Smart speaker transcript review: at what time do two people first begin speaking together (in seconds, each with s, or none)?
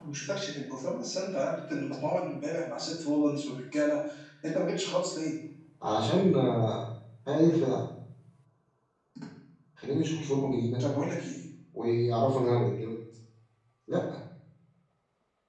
none